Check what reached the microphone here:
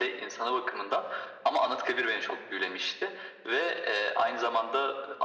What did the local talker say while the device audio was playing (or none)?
none